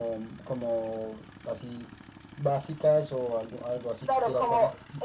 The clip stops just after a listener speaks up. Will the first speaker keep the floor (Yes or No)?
No